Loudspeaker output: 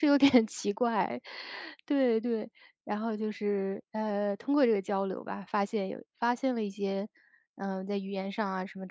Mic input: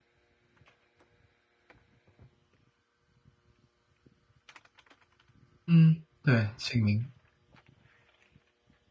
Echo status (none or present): none